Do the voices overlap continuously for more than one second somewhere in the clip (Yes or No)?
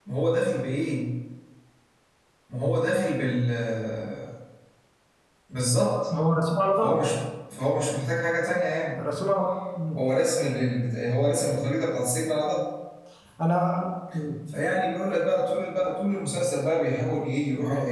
No